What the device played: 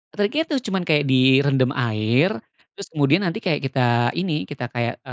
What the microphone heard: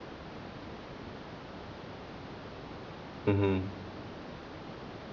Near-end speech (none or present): present